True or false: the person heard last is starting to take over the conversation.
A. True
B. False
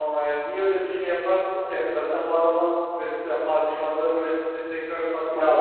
A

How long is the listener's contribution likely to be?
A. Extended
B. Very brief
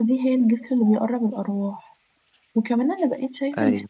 B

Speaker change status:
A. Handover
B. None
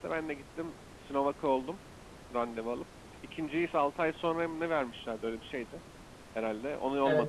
A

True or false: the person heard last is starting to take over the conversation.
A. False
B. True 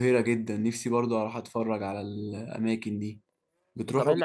B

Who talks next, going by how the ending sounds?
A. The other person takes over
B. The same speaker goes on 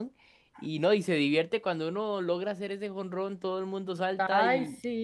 A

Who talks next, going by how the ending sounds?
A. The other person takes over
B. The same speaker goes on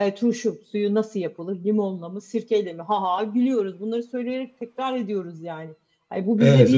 B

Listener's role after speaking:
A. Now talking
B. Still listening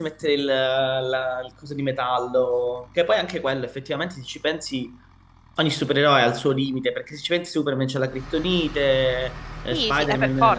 A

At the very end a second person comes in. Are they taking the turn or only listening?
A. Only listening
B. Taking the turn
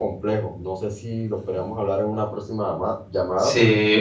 B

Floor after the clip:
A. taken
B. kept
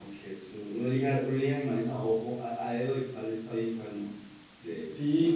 A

